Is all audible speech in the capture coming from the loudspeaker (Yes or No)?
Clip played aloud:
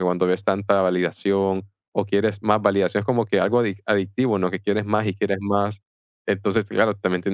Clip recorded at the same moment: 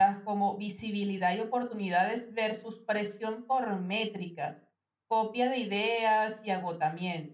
No